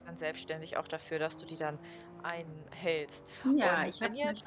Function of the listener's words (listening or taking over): taking over